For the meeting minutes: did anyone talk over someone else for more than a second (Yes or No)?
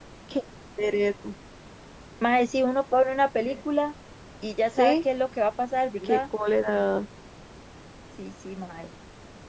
No